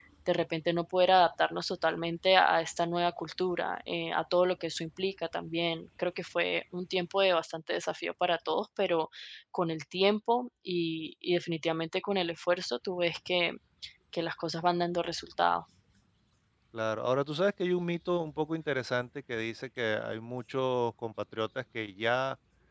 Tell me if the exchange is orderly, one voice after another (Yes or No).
Yes